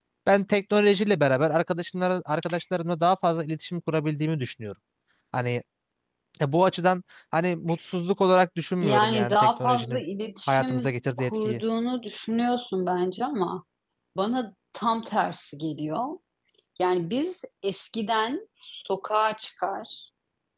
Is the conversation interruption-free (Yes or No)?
No